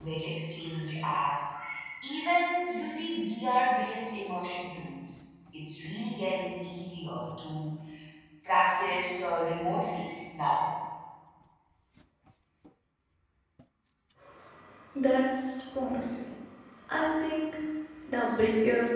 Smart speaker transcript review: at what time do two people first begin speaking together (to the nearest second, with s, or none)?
none